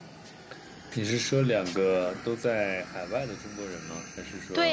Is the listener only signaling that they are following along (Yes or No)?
No